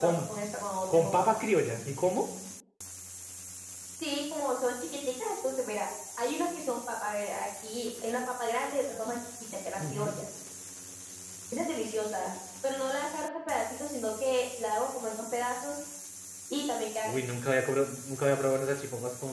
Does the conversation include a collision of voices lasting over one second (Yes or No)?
No